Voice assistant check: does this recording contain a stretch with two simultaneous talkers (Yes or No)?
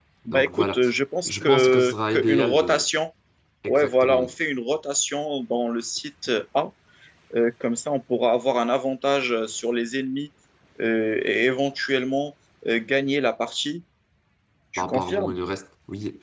Yes